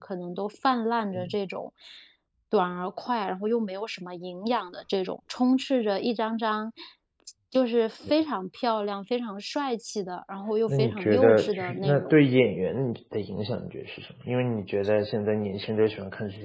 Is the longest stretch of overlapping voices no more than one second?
No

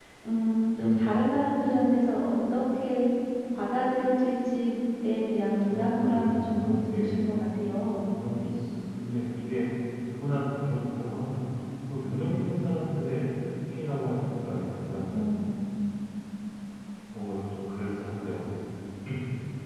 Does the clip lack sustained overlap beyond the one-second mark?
No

